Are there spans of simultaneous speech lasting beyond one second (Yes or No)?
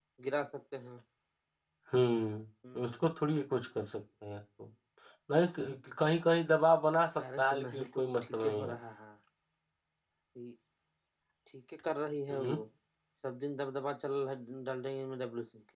Yes